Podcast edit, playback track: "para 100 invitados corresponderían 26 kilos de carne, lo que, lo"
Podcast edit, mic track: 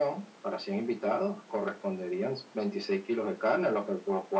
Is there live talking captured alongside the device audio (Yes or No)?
No